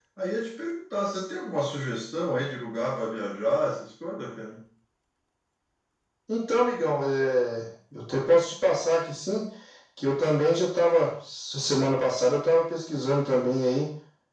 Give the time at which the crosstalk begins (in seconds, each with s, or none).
none